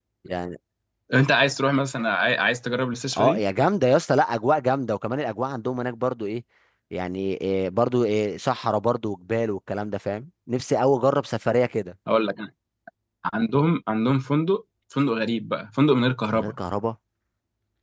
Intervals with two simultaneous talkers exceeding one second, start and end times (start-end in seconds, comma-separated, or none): none